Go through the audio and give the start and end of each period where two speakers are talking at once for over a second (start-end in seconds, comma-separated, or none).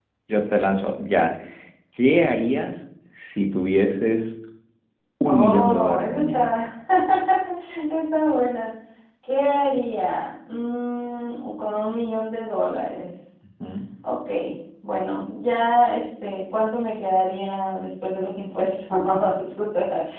5.2-6.5